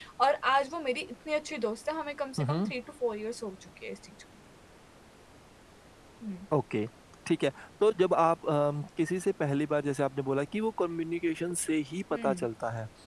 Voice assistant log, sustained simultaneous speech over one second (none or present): none